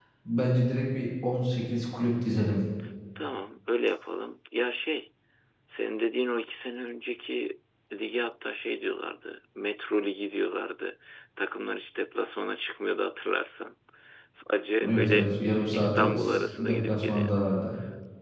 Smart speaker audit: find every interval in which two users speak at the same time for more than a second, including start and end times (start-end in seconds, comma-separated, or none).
15.7-17.3